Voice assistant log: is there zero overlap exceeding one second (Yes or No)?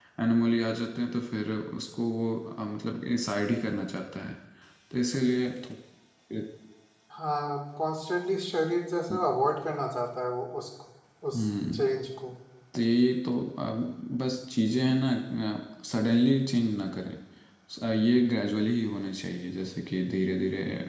Yes